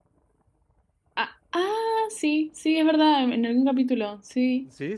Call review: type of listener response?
taking over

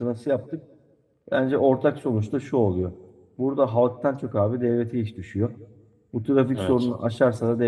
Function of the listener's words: listening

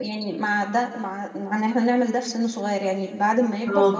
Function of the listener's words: listening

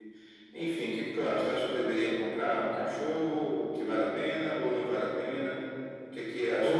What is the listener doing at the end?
taking over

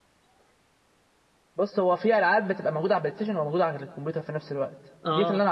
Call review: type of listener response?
listening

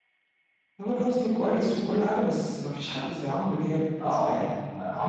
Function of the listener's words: taking over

